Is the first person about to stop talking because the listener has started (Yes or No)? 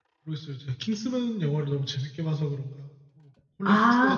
Yes